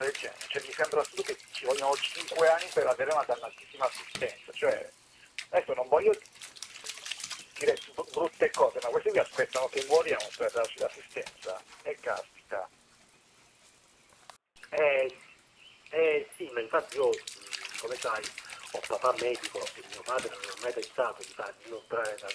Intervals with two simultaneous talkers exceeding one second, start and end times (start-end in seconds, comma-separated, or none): none